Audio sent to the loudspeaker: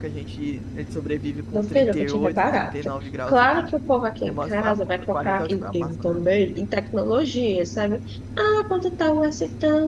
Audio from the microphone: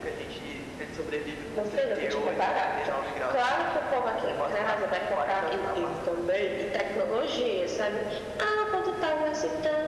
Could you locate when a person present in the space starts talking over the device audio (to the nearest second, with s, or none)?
none